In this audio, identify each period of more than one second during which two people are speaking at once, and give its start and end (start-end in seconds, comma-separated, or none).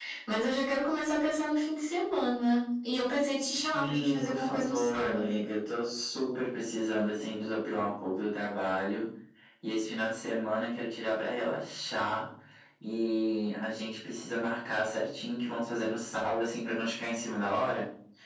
3.7-5.4